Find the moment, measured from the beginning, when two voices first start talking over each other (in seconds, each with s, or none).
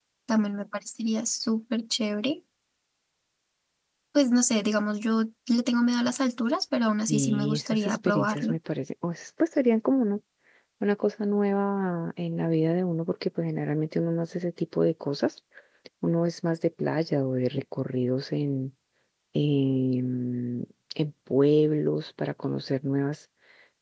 7.1 s